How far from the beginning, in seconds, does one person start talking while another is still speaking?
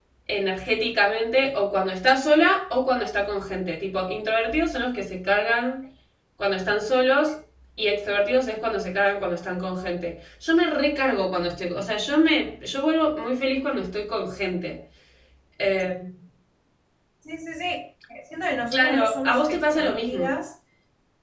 18.7 s

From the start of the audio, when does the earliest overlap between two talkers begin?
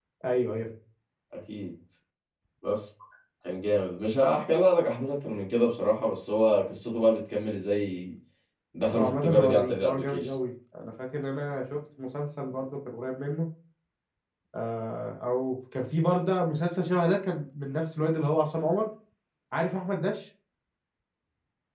8.9 s

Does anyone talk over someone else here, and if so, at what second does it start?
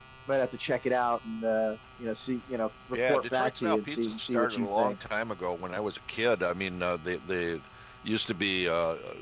2.9 s

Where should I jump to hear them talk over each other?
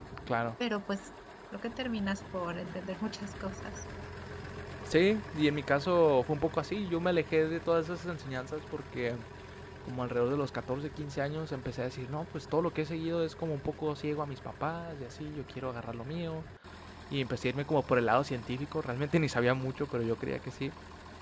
none

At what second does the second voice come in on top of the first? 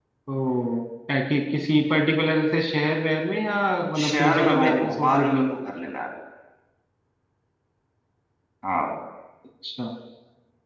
4.0 s

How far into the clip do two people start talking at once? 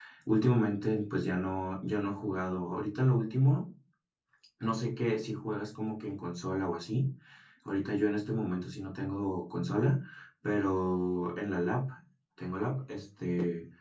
none

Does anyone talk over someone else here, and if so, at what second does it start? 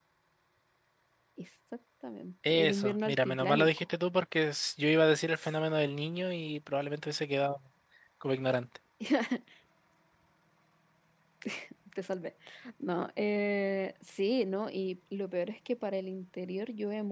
2.4 s

